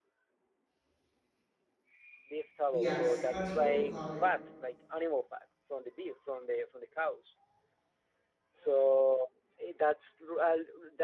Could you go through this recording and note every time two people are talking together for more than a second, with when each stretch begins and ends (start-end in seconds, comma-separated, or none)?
2.7-4.2